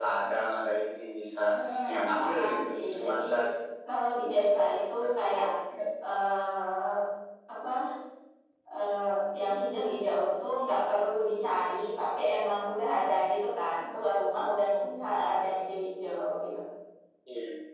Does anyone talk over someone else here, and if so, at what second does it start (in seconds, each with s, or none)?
1.8 s